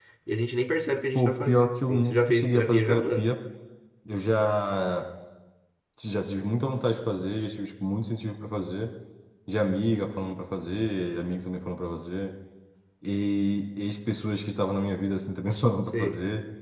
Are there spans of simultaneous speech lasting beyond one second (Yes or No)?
Yes